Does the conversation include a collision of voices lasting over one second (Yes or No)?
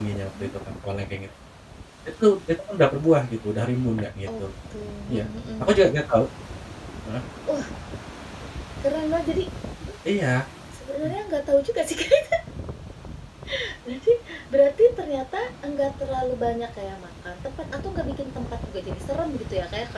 No